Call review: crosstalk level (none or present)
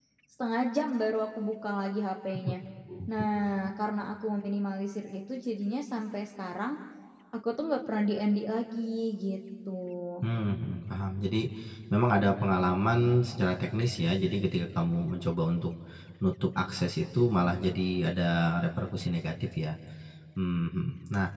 none